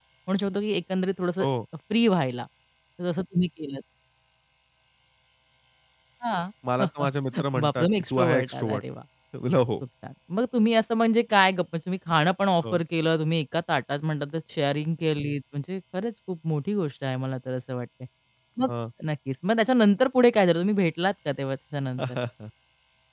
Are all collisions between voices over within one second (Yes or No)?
No